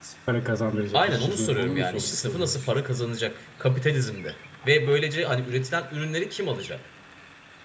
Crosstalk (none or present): present